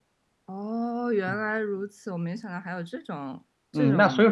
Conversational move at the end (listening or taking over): taking over